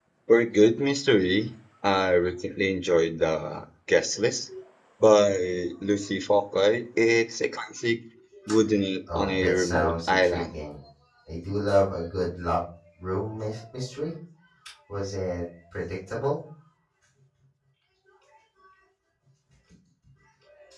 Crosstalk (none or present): present